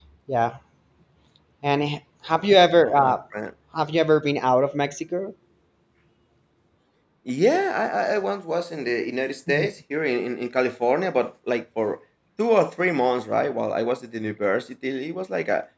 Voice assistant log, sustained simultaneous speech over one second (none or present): none